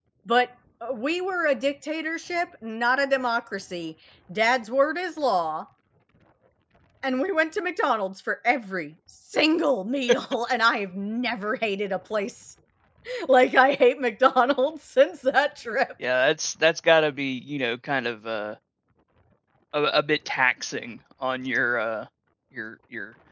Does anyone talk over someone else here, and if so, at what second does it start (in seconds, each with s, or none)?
none